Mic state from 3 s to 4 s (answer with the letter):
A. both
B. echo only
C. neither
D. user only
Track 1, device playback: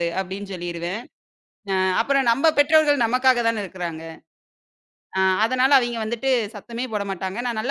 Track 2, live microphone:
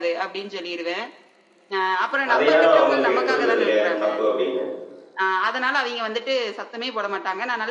A